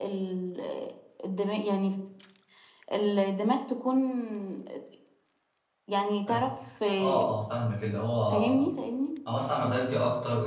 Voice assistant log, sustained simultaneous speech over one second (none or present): none